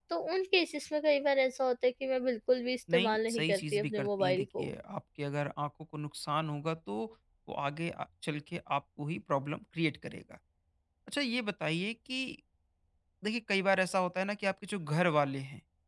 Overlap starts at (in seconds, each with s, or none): 2.9 s